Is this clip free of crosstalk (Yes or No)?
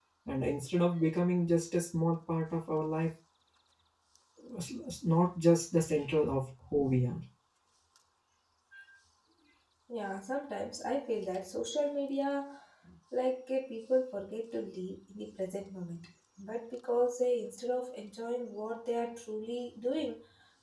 Yes